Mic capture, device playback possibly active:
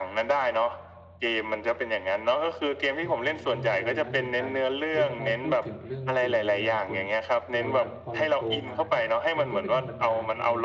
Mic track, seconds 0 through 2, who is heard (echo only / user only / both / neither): echo only